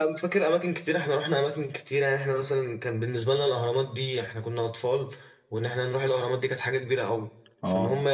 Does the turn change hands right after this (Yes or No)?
No